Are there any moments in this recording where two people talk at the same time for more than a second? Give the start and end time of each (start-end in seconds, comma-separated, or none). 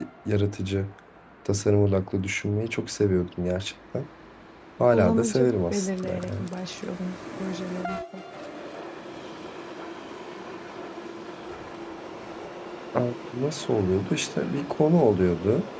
4.9-6.5